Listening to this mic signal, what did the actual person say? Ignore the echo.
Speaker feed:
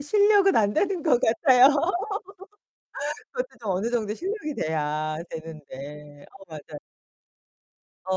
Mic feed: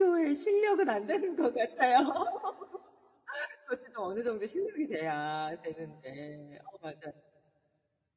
none

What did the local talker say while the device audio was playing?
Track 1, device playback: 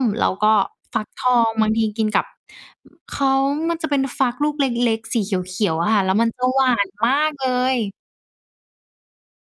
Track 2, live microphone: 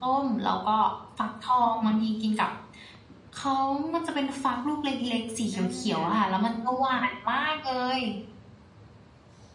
อา

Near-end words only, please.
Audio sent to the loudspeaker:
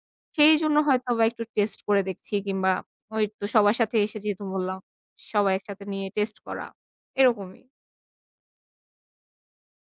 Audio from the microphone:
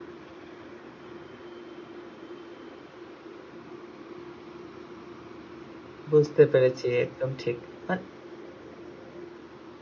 বুঝতে পেরেছি একদম ঠিক মান

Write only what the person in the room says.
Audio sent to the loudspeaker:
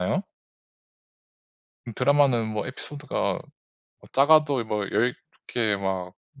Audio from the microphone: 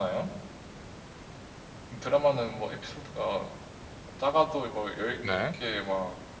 네.

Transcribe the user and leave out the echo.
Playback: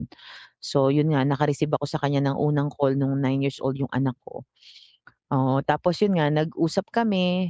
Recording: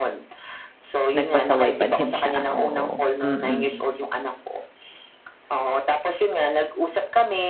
Nagpasaway pa din siya, oo, mm.

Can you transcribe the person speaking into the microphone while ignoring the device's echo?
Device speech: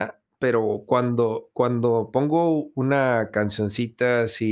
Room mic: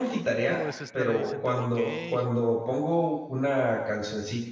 No, todo es estar ahí sentado, okey.

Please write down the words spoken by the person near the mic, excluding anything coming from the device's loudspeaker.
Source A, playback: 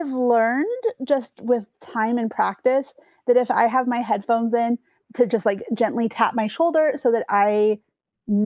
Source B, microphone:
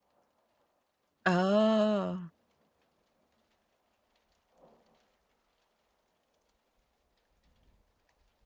Oh.

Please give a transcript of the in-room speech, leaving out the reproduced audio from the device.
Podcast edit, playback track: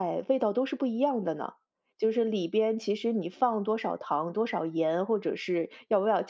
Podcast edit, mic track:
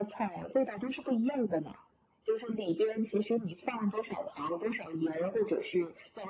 none

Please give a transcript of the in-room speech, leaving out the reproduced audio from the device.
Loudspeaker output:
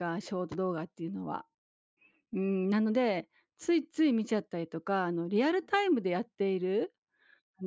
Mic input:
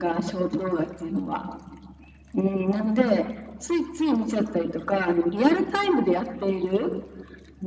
none

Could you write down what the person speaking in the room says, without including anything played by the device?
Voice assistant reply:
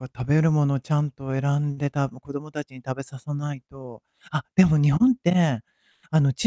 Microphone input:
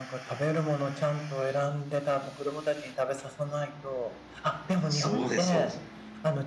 そうですそうです。

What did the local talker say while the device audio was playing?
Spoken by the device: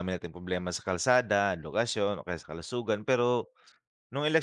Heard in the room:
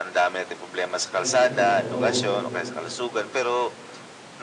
Ayun, oo.

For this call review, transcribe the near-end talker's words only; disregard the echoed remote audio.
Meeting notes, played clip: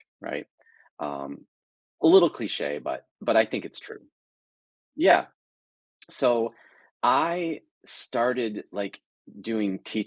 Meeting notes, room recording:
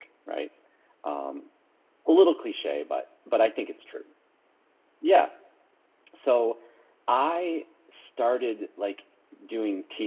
none

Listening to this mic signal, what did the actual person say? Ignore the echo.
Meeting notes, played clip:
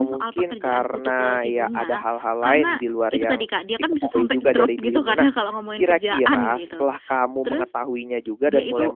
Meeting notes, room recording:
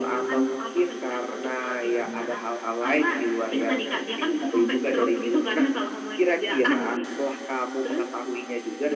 none

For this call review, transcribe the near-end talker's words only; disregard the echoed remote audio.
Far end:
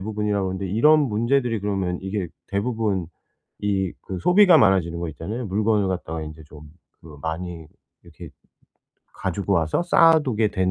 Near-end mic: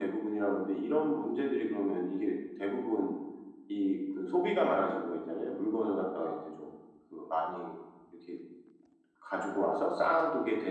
none

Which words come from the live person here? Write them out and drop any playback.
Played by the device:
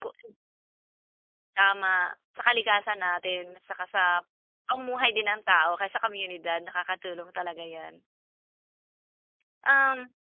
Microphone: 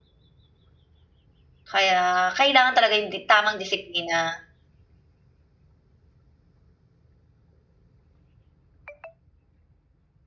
Kaya, kailangan talaga 'yong di tamang disiplina.

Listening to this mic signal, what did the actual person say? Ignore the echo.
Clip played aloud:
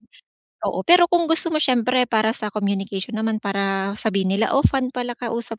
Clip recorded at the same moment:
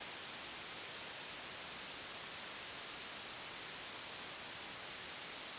none

